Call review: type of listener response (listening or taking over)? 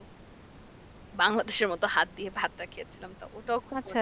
taking over